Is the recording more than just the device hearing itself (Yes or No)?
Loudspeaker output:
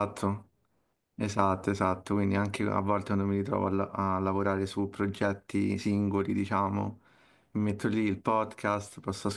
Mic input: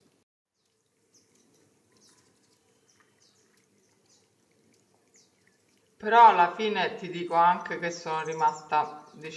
Yes